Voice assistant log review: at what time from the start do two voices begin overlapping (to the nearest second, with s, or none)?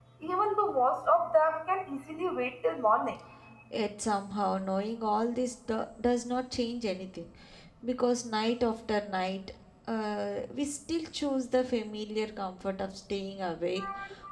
none